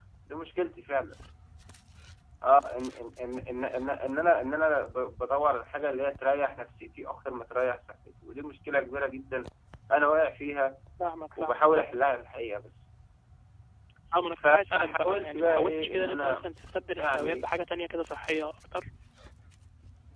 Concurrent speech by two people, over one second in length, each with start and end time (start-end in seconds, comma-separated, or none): 14.4-16.4